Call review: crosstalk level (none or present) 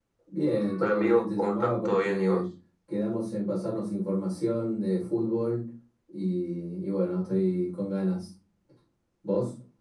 present